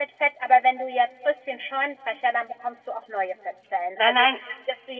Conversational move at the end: listening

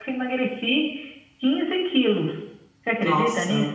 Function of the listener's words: taking over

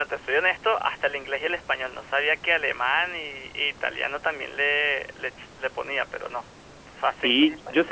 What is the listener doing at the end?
taking over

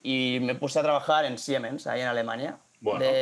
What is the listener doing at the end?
listening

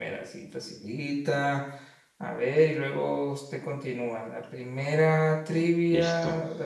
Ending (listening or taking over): listening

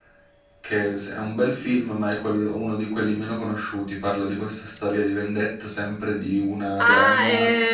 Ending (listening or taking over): taking over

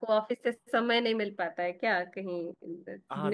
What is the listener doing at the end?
taking over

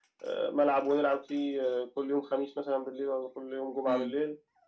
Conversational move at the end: taking over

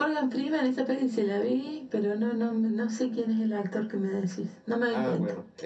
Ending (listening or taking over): taking over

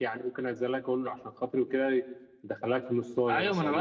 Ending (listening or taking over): taking over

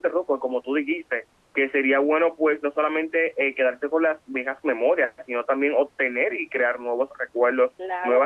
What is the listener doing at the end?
listening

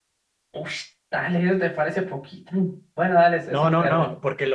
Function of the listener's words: taking over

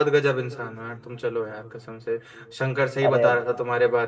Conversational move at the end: listening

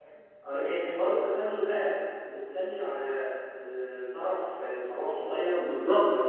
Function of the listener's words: taking over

